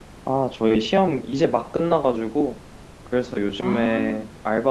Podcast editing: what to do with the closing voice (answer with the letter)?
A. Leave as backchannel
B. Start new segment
A